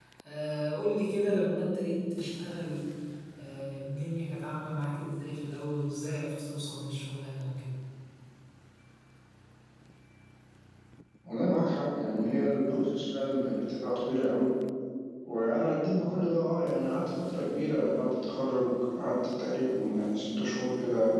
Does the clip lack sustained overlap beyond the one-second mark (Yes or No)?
Yes